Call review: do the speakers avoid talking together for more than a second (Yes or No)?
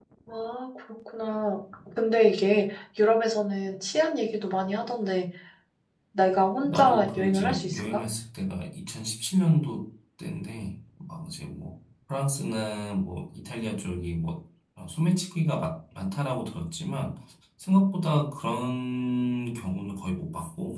No